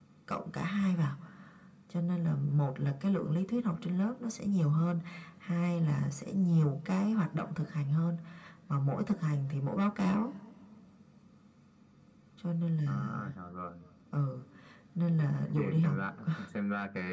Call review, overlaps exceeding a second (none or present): none